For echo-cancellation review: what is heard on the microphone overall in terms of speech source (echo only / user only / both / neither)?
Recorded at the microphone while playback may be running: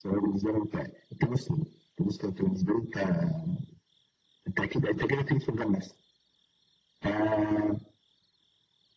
echo only